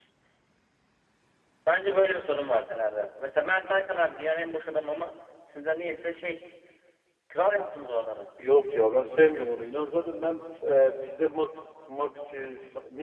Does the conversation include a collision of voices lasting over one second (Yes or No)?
No